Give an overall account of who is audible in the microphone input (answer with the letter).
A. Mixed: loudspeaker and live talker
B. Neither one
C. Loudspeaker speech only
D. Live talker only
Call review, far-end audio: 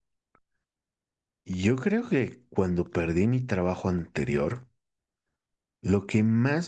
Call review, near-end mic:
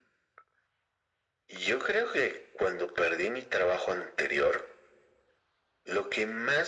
C